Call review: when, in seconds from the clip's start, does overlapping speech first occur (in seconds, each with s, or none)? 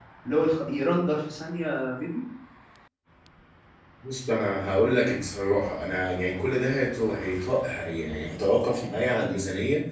none